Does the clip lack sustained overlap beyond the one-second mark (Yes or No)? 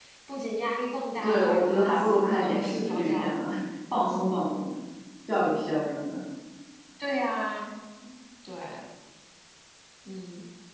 No